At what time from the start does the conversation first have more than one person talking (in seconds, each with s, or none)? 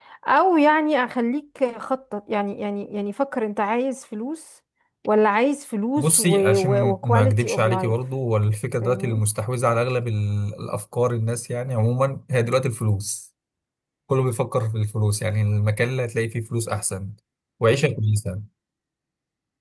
6.0 s